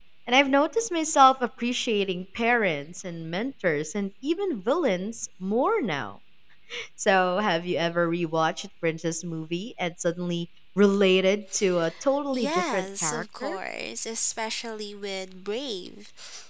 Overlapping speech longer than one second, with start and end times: 12.3-13.6

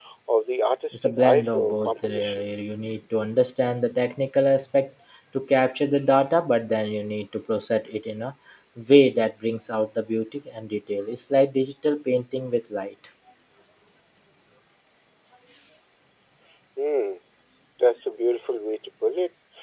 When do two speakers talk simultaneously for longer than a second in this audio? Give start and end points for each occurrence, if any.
0.9-2.4

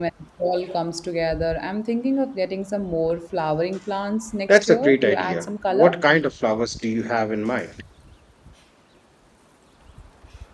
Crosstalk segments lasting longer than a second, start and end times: 4.5-5.9

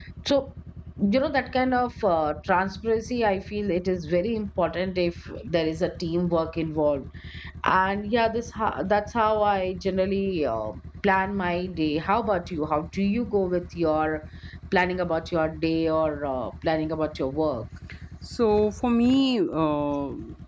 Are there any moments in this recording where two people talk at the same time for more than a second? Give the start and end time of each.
none

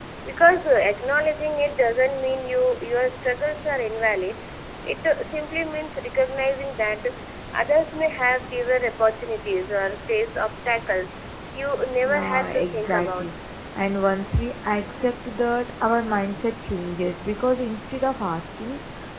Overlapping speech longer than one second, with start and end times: 12.1-13.3

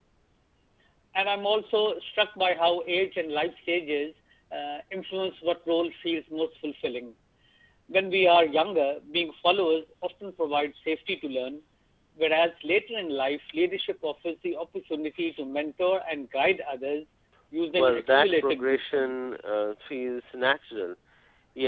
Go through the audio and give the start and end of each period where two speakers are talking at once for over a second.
17.8-19.1

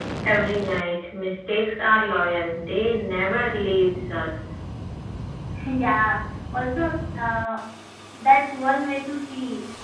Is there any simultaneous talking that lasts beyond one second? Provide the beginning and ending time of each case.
none

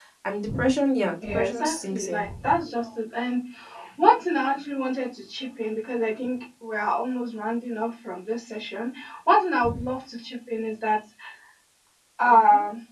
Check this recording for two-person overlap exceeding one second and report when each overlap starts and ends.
1.2-2.6

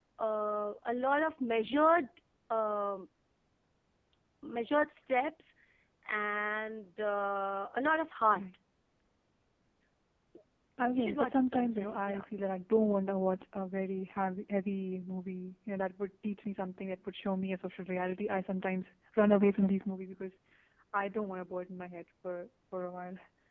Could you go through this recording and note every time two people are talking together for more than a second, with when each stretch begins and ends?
10.9-12.2

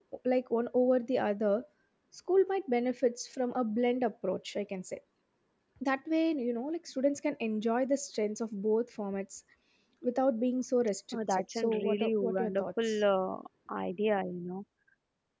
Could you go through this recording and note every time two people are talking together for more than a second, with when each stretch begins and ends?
11.1-13.0

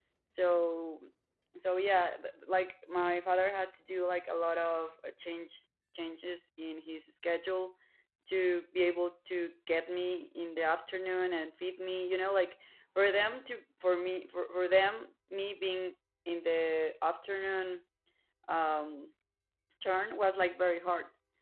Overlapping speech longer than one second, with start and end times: none

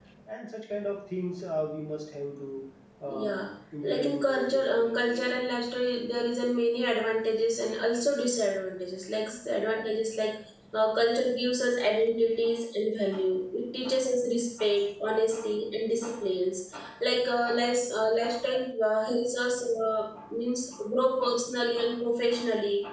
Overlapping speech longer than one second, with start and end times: 3.8-5.3

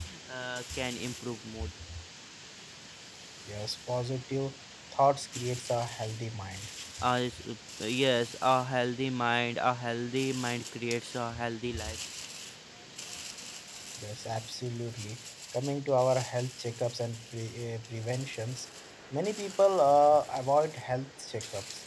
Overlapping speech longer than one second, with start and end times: none

